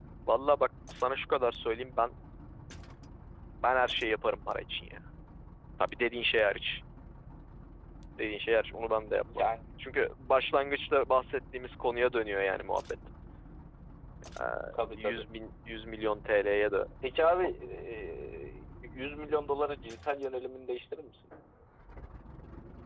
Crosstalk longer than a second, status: none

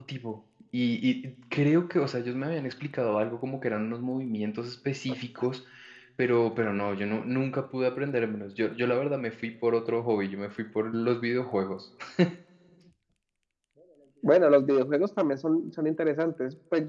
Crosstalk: none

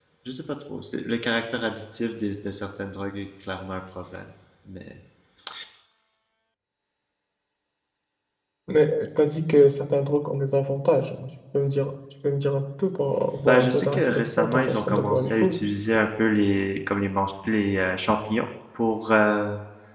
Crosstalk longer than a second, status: present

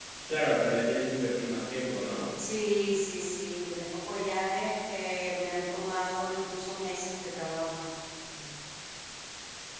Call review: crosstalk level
none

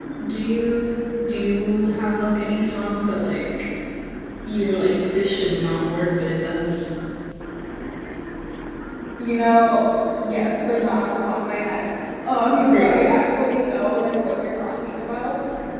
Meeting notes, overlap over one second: none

